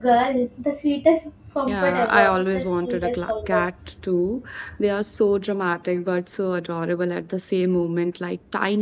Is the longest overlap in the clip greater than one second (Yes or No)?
Yes